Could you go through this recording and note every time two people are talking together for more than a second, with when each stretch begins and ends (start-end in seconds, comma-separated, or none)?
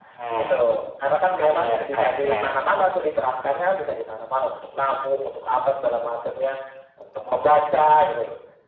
1.3-2.6